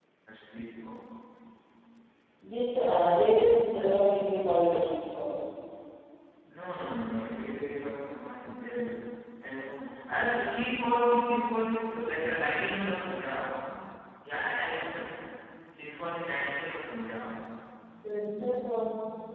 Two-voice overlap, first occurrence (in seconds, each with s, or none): none